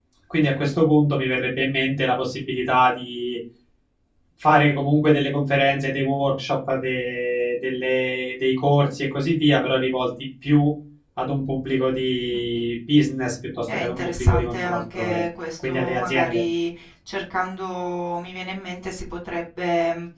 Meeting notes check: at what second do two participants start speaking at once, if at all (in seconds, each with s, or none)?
13.7 s